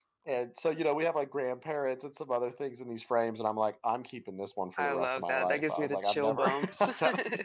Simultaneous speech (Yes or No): Yes